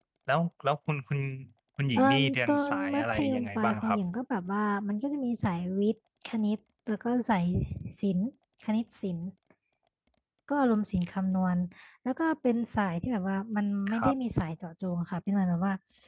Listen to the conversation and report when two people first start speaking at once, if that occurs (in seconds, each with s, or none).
2.0 s